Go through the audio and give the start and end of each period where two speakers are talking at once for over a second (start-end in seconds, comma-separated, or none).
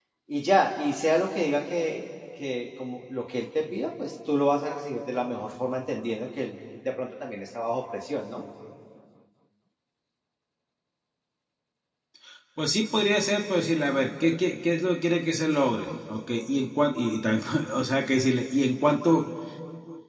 none